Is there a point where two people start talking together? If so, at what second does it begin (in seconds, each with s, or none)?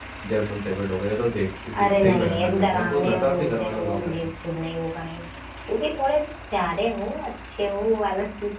1.7 s